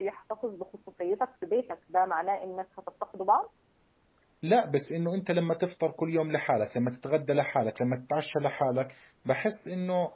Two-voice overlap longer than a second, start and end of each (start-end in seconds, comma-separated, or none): none